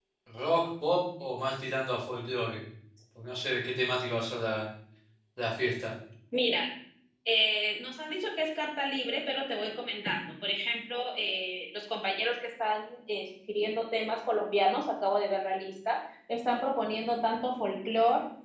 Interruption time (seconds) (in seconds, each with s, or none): none